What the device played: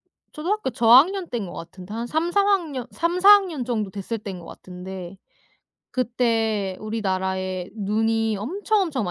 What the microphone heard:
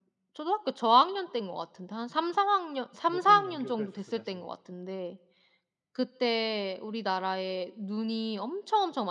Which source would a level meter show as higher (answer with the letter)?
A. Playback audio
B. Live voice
A